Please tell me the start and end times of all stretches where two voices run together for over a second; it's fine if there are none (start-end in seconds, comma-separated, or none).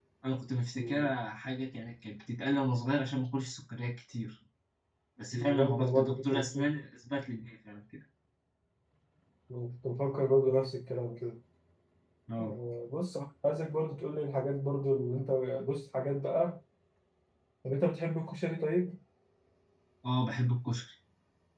5.3-6.7